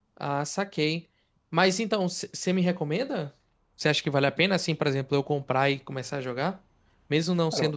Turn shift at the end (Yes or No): No